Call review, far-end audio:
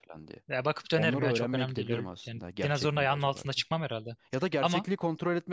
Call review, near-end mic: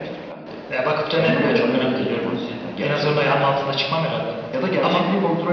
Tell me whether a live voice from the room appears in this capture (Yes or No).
No